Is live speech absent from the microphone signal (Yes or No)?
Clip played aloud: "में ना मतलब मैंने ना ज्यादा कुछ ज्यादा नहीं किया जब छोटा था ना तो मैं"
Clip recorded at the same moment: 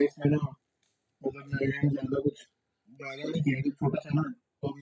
Yes